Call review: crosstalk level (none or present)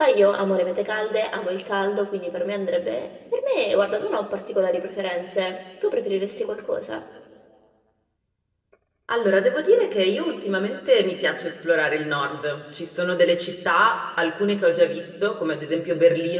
none